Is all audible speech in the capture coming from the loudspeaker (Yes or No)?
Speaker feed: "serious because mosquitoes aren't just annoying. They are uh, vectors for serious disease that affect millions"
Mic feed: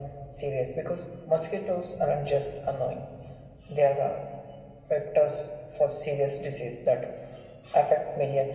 Yes